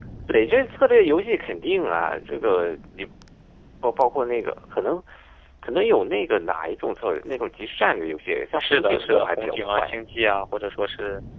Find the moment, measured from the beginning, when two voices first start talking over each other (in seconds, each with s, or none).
8.6 s